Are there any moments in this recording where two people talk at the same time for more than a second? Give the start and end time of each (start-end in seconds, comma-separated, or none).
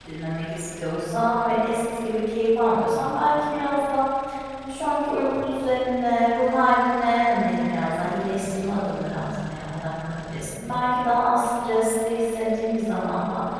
none